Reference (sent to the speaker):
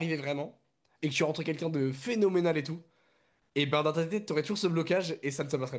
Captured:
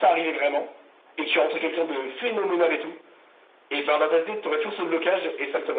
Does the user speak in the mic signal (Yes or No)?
Yes